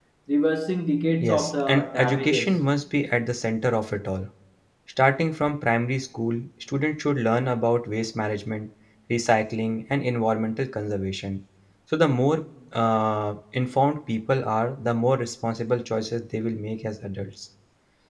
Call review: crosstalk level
present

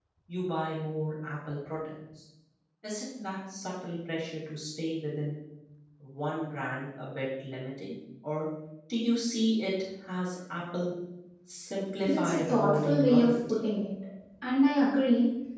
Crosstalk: present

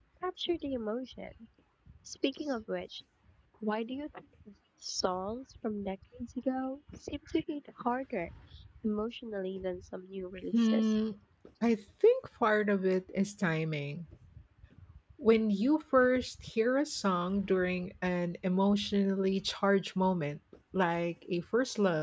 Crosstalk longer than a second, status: none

